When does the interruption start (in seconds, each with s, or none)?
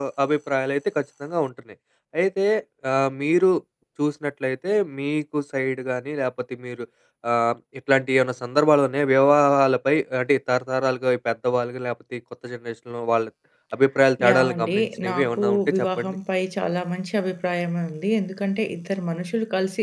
14.3 s